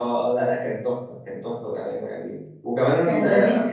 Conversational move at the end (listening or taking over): listening